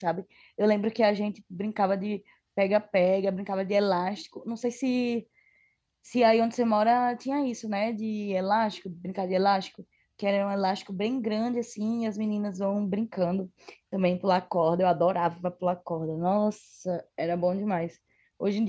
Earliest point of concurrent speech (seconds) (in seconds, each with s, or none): none